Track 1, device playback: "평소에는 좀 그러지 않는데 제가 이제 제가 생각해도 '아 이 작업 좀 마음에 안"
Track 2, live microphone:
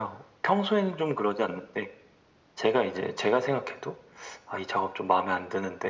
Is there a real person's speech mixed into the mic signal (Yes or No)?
No